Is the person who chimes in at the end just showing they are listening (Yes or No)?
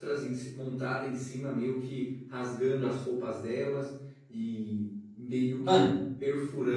Yes